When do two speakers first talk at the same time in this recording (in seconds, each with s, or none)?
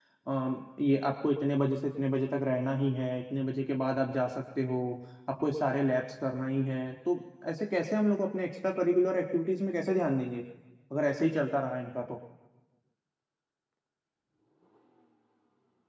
none